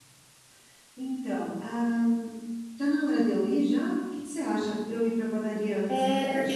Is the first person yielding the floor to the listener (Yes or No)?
Yes